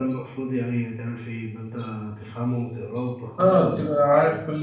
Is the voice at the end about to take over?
Yes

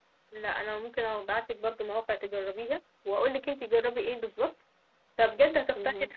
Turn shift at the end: No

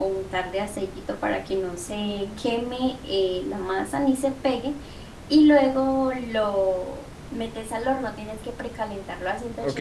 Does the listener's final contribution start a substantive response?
Yes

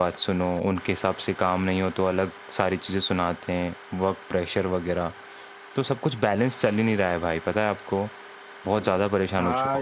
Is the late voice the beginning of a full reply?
Yes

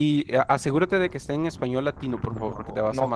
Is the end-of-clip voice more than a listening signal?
Yes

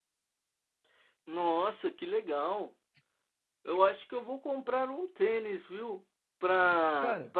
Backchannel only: Yes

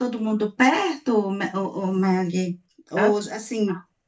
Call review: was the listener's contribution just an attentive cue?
Yes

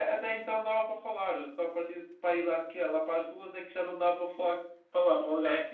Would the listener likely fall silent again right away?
No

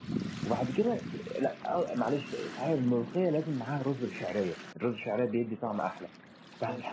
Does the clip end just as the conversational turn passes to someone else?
No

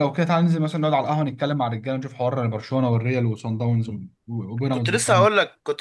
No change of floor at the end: No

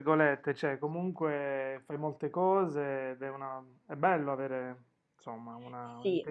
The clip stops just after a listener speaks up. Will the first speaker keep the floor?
No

